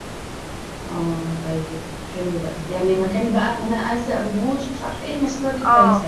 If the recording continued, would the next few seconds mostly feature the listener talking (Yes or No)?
Yes